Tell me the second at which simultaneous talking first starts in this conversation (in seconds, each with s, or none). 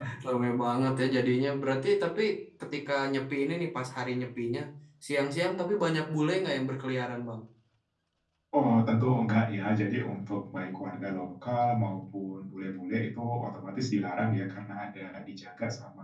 none